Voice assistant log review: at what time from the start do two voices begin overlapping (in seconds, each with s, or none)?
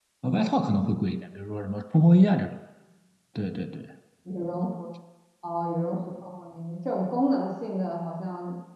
none